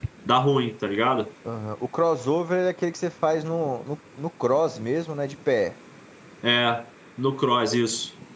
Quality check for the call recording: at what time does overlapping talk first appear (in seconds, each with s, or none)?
none